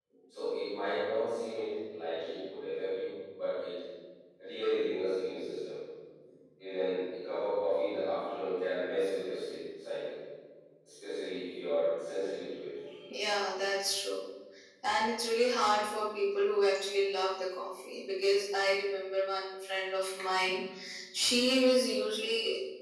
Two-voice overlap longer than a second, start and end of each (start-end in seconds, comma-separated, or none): none